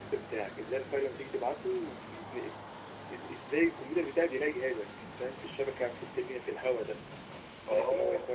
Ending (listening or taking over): listening